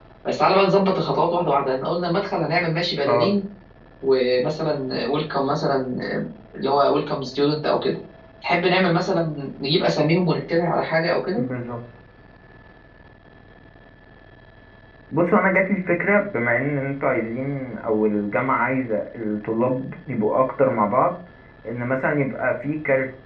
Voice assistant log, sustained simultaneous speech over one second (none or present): none